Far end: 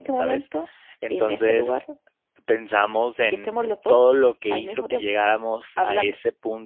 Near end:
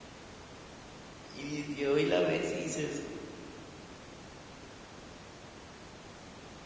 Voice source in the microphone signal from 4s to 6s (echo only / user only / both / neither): neither